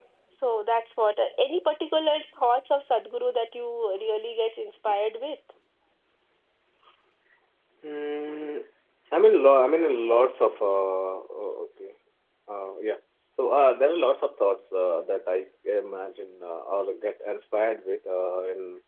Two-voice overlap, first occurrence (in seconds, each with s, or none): none